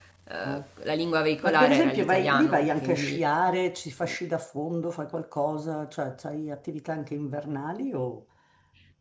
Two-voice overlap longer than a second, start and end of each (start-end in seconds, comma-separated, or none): 1.4-3.2